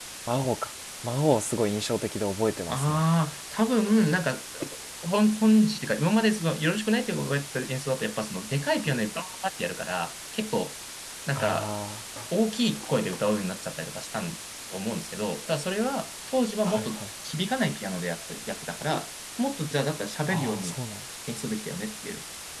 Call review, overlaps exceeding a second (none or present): none